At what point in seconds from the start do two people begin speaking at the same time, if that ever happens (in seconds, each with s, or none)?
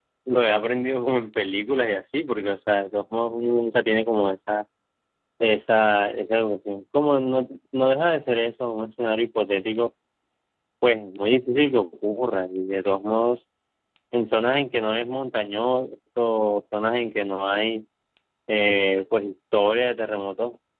none